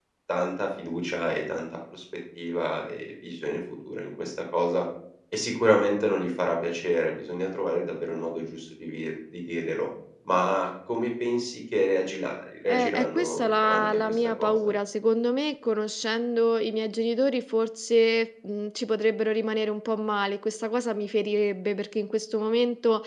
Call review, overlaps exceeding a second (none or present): present